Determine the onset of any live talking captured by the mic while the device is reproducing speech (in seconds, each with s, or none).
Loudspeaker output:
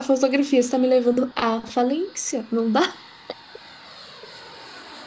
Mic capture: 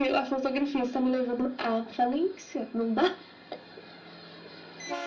none